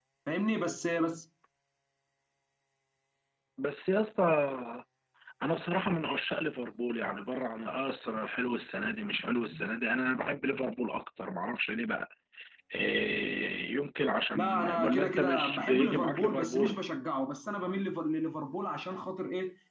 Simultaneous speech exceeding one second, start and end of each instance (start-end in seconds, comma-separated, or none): 14.4-16.8